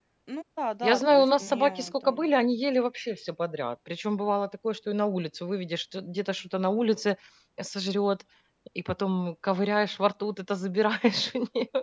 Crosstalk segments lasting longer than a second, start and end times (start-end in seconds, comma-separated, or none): 0.8-2.2